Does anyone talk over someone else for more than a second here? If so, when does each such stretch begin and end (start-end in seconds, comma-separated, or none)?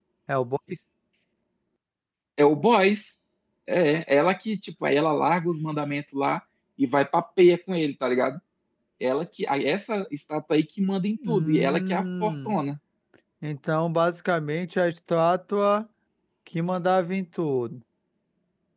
11.3-12.6